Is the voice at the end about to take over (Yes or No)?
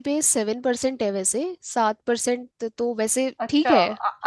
Yes